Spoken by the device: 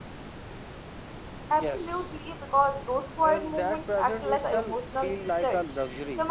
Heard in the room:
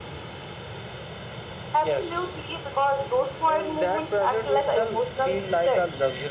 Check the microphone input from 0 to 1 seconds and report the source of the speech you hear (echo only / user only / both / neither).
neither